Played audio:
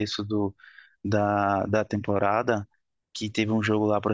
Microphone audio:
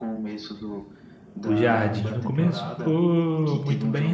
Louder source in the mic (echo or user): user